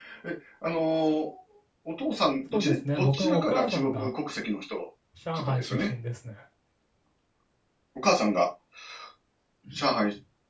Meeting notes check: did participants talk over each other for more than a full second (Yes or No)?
Yes